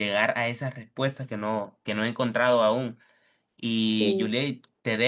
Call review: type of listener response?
listening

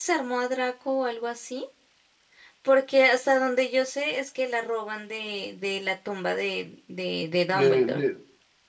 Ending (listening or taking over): taking over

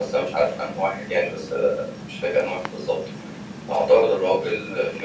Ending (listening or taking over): listening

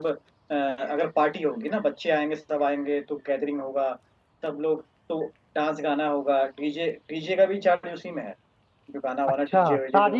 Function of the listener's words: taking over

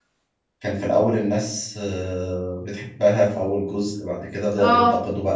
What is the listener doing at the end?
listening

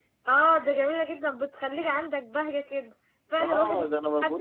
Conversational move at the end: taking over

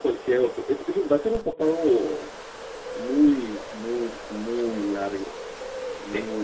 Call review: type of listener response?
listening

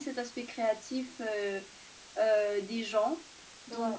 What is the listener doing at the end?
listening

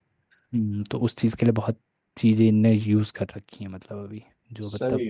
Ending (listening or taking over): taking over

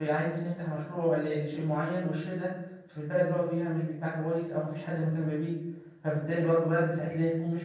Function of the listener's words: listening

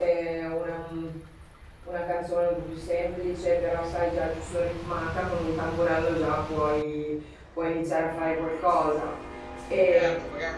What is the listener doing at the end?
taking over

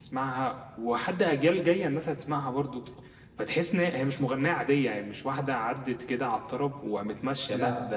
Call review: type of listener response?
listening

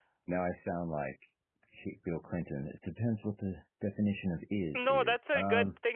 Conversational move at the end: taking over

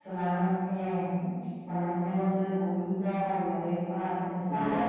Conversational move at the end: listening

